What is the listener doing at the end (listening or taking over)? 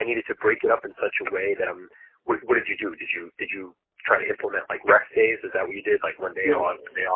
taking over